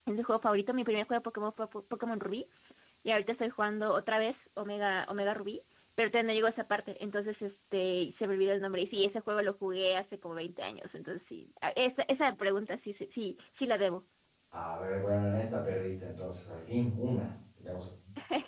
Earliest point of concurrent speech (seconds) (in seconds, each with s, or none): none